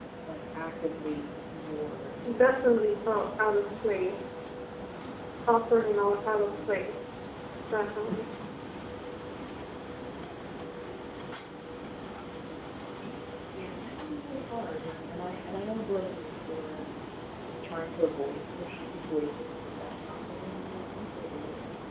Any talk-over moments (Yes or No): Yes